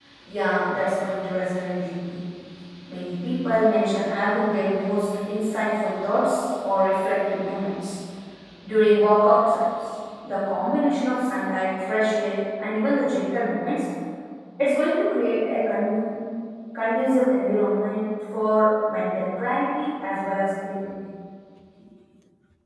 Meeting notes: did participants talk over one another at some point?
No

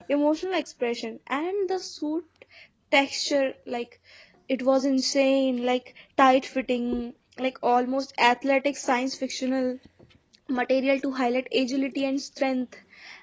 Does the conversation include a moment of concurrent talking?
No

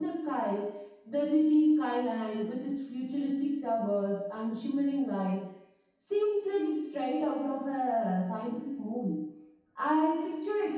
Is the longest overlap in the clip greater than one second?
No

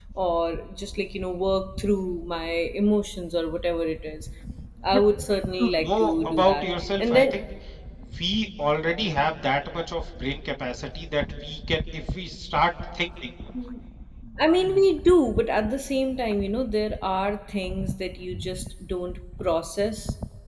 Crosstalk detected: Yes, from 5.6 s

